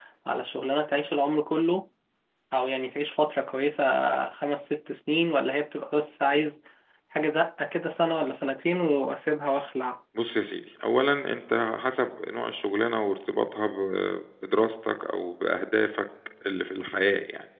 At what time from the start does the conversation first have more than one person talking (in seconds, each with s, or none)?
none